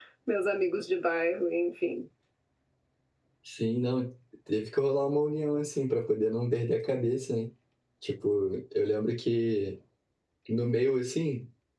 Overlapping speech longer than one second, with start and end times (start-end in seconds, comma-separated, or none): none